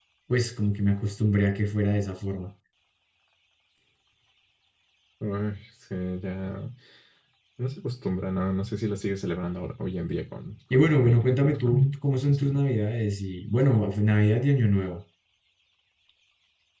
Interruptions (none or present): present